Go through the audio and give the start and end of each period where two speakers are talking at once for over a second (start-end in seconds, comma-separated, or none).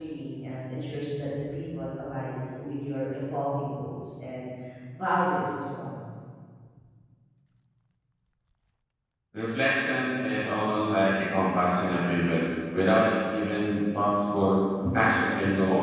none